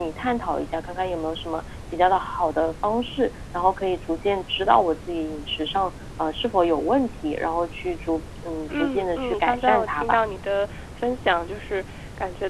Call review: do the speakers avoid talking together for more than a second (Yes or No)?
No